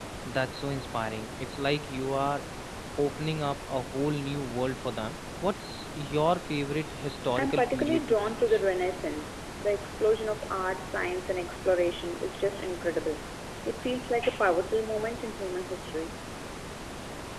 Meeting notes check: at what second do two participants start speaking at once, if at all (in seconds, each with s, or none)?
7.3 s